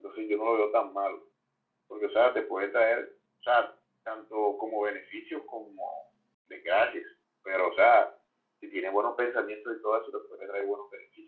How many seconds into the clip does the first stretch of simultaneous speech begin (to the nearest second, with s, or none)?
none